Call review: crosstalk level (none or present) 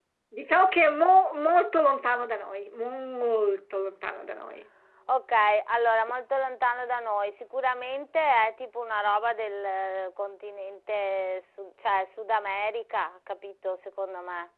none